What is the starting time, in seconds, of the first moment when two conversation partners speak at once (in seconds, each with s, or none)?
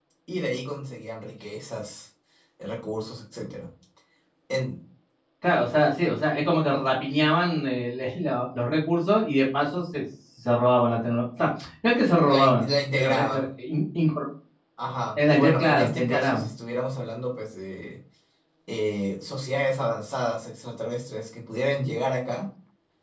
12.2 s